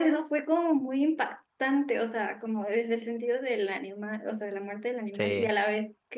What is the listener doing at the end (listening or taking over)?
listening